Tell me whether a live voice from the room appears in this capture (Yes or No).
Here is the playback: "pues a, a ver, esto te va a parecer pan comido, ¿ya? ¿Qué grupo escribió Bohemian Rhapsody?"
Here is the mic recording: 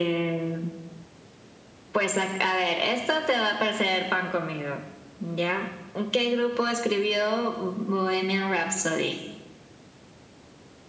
No